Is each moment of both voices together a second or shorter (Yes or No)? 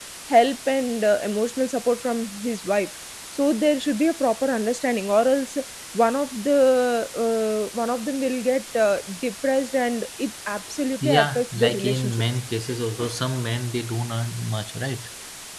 No